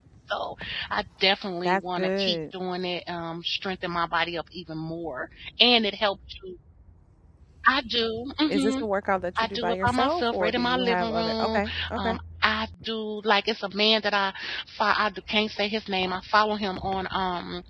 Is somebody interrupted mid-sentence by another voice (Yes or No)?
Yes